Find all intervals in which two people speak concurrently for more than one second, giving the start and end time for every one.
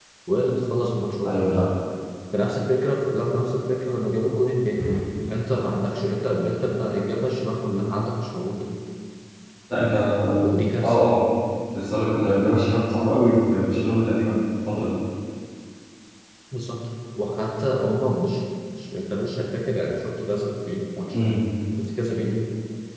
none

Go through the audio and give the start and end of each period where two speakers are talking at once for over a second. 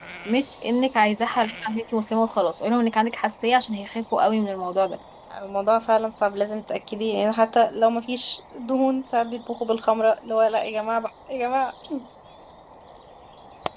none

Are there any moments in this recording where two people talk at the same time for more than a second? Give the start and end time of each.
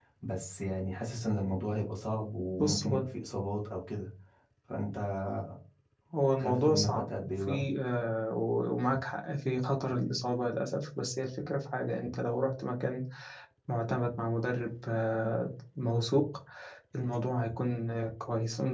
6.4-7.7

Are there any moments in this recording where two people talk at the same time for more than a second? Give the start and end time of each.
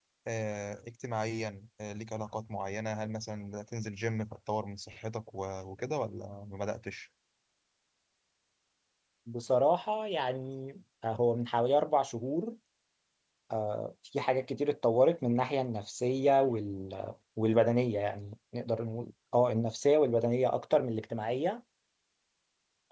none

